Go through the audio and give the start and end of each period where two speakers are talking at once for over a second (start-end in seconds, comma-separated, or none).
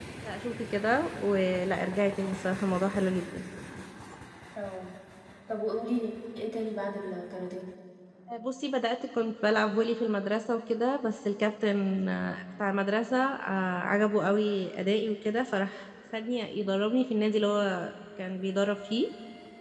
none